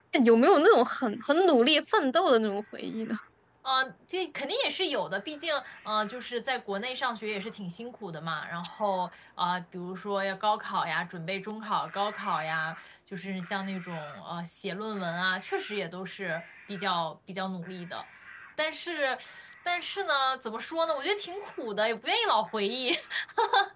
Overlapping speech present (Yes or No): No